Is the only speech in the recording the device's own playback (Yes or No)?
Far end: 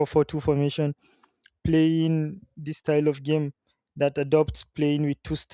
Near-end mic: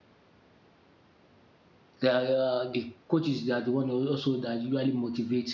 No